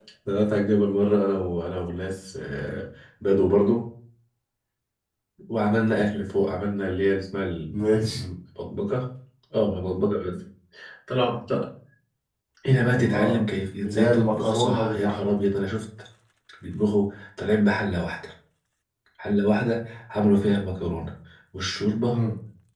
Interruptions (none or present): present